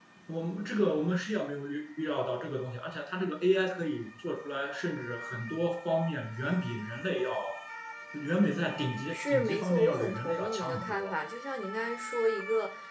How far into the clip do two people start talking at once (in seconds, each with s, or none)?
9.1 s